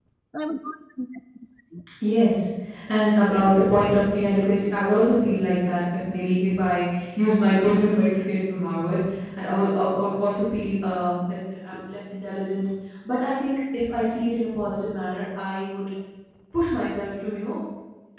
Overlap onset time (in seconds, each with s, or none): none